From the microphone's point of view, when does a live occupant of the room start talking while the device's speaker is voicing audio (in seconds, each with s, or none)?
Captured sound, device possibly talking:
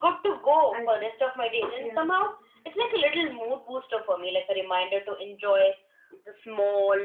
0.7 s